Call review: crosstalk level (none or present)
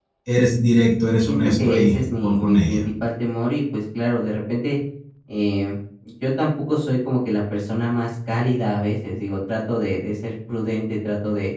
present